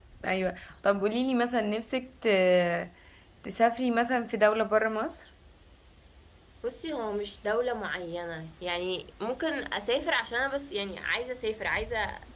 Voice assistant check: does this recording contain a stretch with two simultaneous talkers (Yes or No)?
No